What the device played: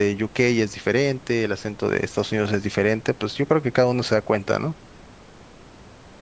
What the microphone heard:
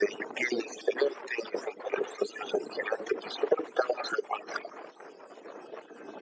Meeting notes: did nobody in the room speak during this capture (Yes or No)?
Yes